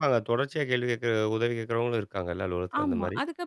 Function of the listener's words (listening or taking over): taking over